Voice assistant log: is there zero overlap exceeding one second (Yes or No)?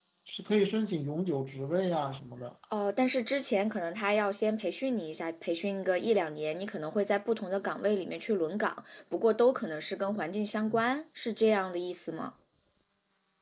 Yes